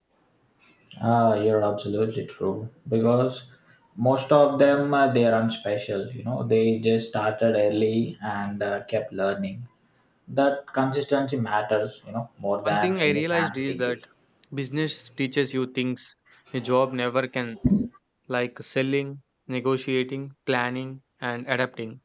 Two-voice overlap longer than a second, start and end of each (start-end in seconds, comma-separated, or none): 12.7-13.9